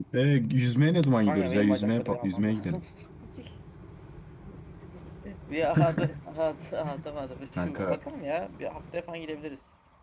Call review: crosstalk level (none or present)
present